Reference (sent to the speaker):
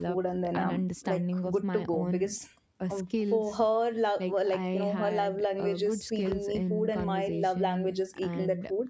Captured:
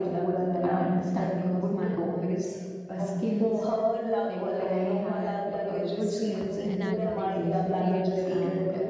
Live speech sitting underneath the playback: Yes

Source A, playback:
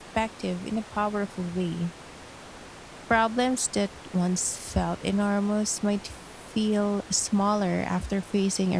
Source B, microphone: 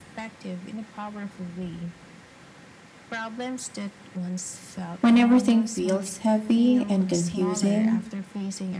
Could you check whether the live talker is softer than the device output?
No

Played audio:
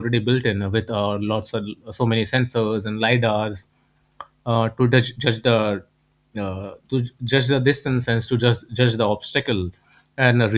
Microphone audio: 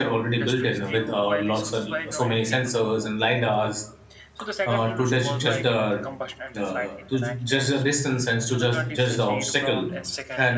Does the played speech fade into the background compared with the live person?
No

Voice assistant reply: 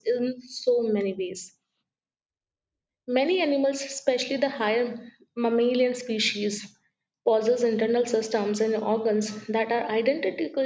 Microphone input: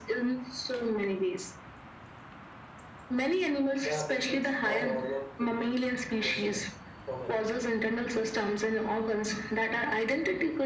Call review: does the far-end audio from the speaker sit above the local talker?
Yes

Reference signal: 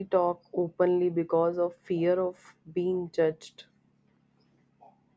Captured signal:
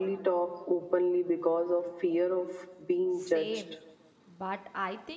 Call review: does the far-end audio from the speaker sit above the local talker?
Yes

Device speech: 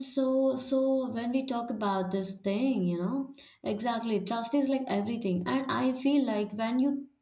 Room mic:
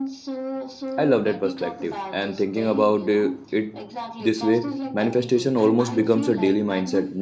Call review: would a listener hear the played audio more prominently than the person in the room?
No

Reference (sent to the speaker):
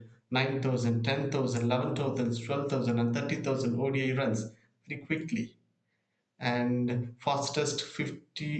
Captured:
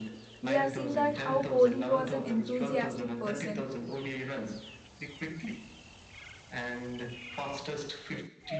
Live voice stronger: Yes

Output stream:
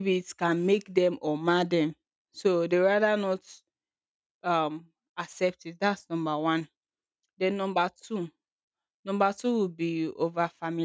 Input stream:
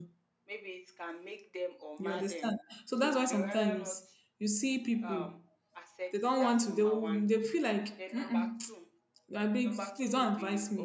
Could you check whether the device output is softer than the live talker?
Yes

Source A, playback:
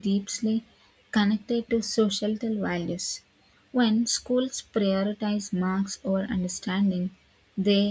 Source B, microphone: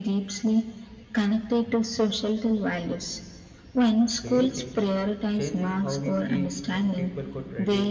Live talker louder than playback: No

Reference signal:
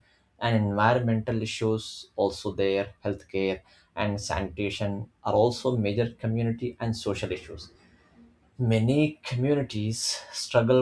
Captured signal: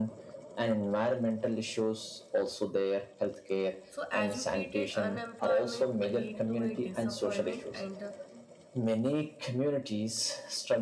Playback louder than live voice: Yes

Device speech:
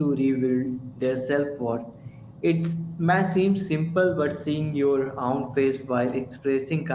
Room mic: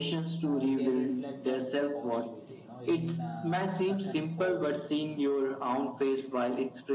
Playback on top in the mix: Yes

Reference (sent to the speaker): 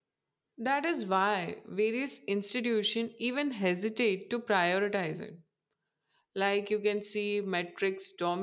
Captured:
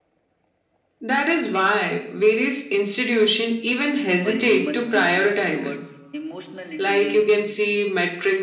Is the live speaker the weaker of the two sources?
Yes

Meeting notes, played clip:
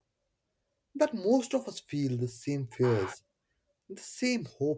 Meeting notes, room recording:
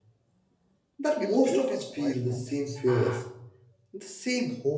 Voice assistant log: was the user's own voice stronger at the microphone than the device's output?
No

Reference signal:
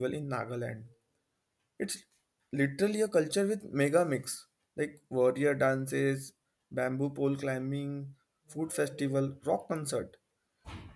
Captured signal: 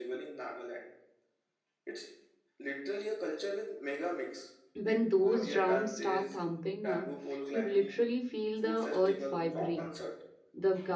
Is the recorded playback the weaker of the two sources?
Yes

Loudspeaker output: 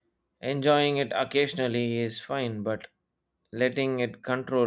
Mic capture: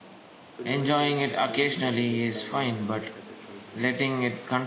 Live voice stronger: No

